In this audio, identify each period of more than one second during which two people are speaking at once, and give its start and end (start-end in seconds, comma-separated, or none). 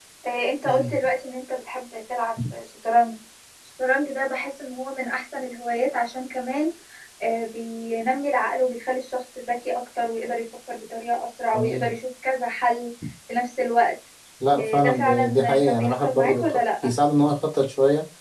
14.6-16.9